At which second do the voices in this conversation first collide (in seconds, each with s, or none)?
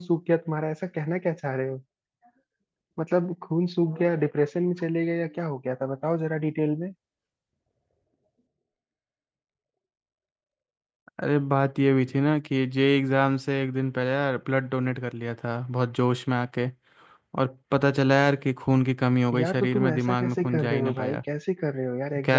19.3 s